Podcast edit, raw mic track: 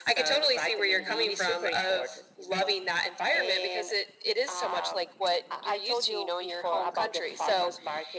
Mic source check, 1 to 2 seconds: both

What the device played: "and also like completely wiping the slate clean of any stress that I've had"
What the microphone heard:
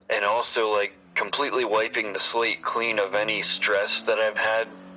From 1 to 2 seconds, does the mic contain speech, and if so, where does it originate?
echo only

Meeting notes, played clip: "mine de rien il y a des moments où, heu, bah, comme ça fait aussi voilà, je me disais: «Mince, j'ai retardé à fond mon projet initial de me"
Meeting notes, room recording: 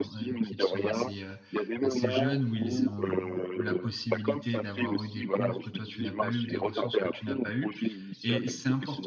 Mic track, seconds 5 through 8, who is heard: both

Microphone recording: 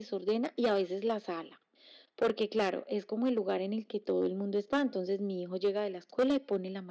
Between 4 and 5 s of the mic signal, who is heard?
echo only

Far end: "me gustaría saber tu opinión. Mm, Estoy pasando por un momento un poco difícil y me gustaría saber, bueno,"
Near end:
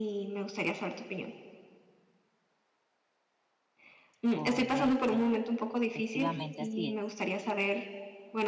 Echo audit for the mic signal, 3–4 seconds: neither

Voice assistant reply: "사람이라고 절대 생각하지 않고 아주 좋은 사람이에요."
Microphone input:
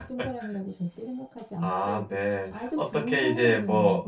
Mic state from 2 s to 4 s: both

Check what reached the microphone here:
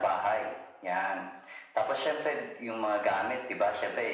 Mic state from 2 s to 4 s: echo only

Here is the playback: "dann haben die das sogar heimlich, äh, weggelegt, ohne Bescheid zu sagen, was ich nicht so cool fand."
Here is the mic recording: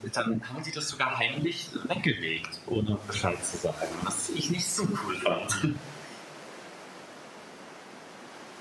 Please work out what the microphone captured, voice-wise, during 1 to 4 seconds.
echo only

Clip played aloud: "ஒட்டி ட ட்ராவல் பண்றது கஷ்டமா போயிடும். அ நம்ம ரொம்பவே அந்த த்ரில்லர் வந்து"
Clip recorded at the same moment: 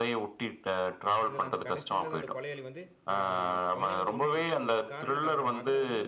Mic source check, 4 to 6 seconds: both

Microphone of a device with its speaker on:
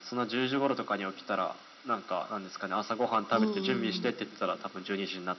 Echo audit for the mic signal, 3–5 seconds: both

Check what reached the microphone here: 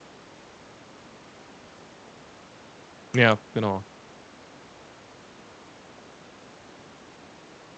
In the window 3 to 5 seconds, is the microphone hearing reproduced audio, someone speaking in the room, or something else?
user only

